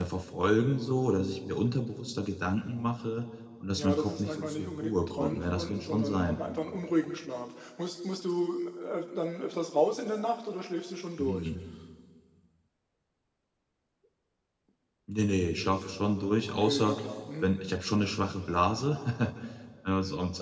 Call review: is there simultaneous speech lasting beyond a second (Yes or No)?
Yes